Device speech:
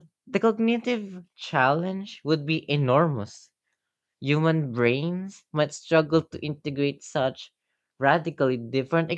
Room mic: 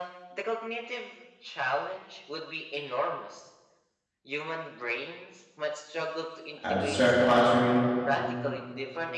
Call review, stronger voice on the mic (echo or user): user